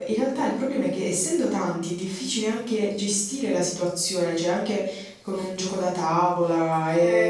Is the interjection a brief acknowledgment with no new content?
No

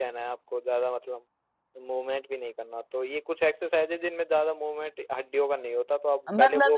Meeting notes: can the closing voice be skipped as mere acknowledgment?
No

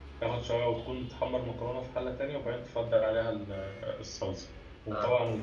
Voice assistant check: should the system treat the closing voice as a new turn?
No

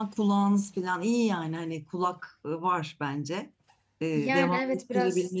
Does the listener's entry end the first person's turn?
Yes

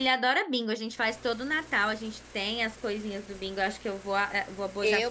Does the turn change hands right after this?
Yes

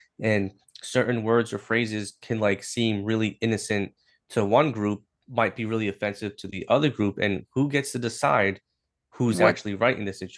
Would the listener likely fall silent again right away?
Yes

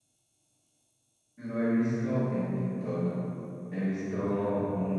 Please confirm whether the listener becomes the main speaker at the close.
No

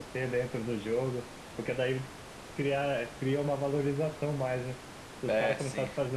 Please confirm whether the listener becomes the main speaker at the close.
No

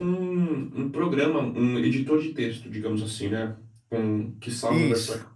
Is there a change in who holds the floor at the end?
No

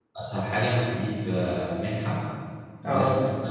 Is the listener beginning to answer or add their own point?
No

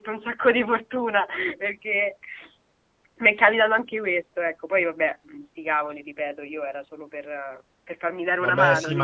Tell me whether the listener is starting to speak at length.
Yes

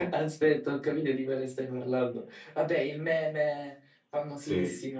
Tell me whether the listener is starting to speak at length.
Yes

